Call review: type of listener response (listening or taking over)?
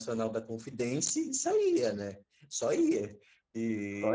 listening